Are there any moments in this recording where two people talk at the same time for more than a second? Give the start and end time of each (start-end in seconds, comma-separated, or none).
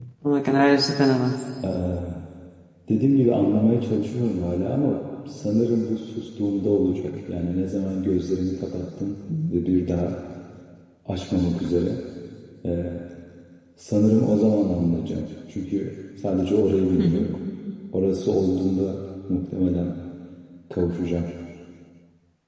none